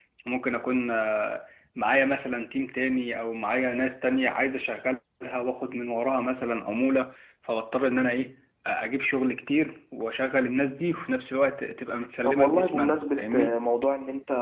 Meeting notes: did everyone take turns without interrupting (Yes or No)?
No